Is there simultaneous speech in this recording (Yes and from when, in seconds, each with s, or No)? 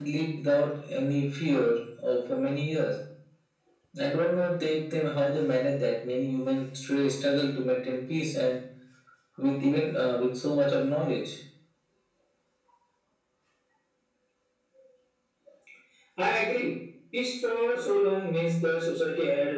No